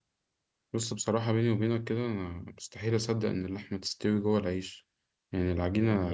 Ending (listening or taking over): listening